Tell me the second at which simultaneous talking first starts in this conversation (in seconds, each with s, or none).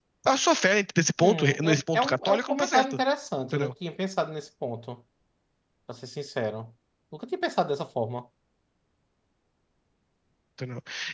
1.2 s